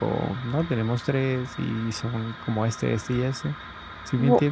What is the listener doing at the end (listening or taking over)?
taking over